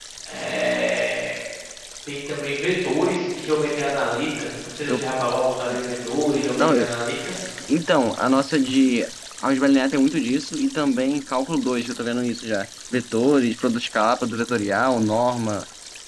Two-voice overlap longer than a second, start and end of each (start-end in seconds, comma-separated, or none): none